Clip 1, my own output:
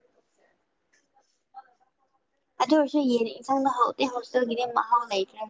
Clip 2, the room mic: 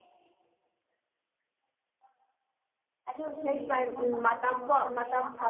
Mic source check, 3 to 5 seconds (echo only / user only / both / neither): both